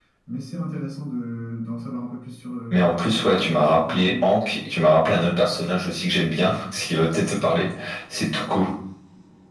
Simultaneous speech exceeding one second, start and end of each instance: 2.7-4.4

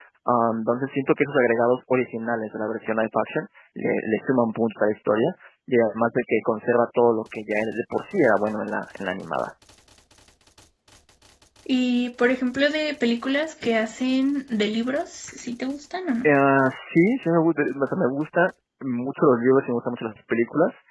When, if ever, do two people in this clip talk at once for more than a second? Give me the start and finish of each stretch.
none

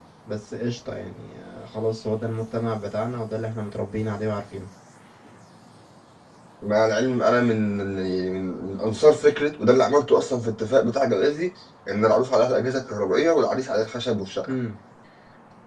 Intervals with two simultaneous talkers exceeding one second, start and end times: none

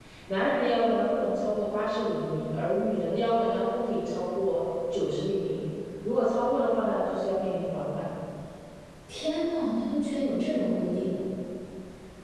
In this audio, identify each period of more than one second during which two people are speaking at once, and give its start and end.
none

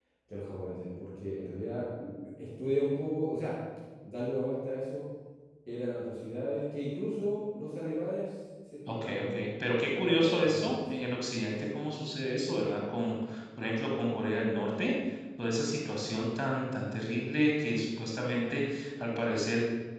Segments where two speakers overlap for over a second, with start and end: 8.9-10.8

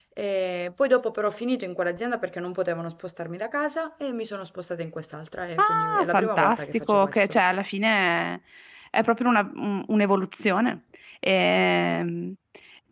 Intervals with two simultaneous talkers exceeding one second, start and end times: 5.6-7.2

